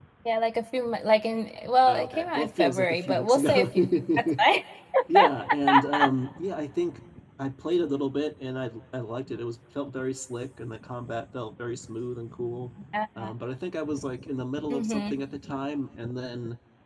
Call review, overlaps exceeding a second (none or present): present